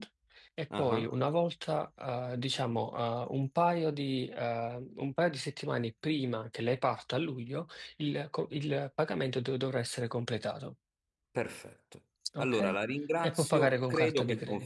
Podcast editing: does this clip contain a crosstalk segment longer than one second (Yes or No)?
Yes